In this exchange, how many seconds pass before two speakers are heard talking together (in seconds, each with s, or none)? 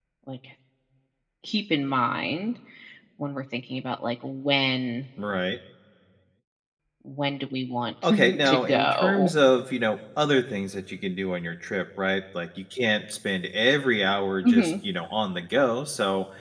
8.0 s